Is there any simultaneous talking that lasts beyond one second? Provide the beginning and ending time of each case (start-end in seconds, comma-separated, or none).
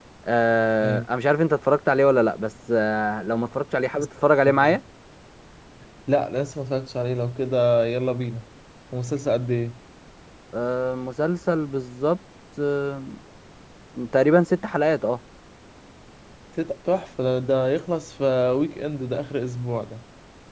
none